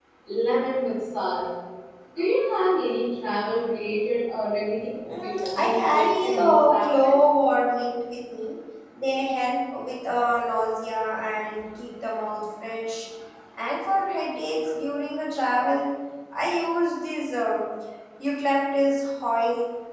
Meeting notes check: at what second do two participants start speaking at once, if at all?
5.0 s

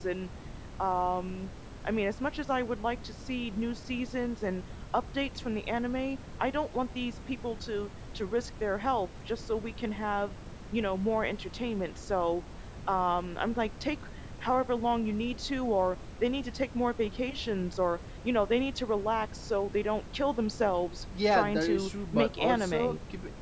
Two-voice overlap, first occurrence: 21.1 s

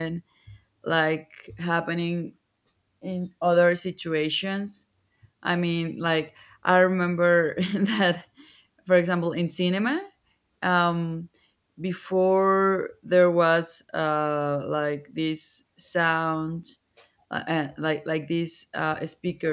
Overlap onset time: none

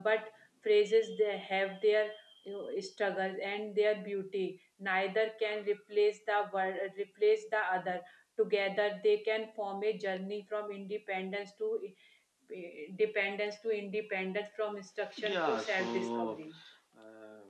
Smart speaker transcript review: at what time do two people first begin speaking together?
15.2 s

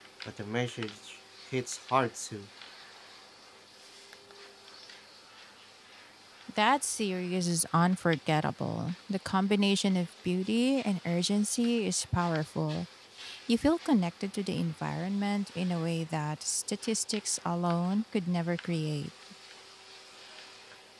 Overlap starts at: none

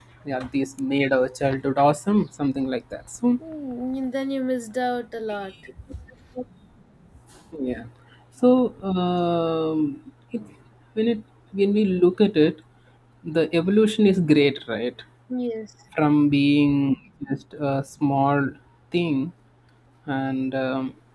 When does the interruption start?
none

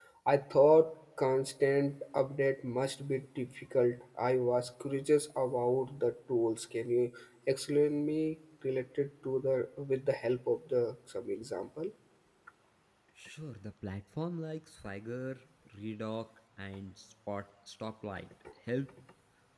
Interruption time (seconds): none

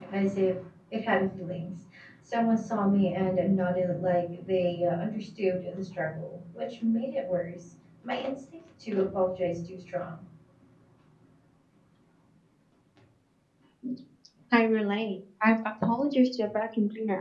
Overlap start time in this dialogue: none

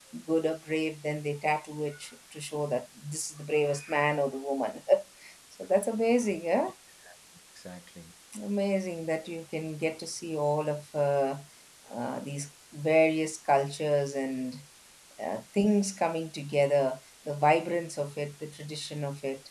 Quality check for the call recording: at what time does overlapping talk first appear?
none

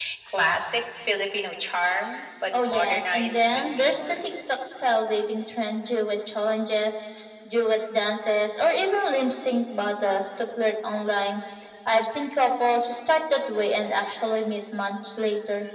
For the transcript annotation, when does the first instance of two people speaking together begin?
2.5 s

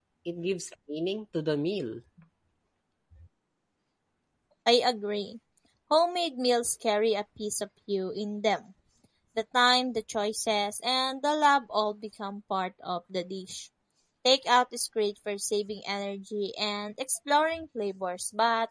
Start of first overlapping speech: none

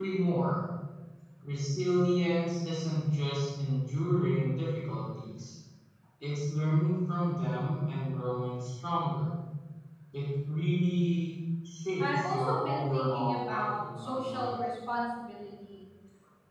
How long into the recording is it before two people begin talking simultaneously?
12.0 s

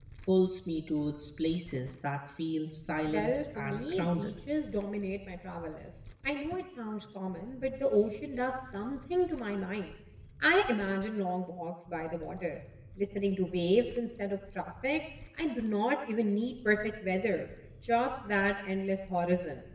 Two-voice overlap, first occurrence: 3.1 s

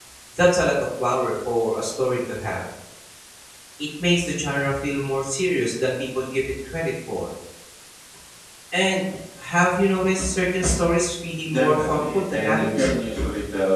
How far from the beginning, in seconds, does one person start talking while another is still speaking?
11.4 s

